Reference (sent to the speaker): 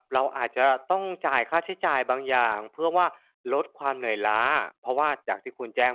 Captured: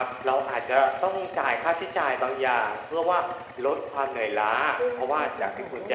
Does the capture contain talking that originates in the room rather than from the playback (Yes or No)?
Yes